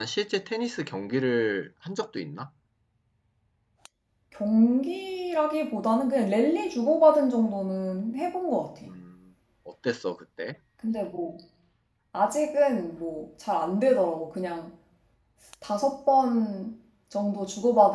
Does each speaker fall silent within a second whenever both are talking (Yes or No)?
Yes